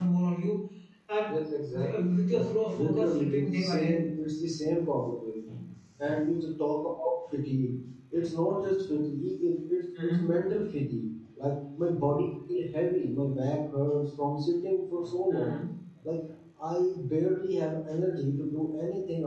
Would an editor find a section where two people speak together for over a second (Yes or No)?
Yes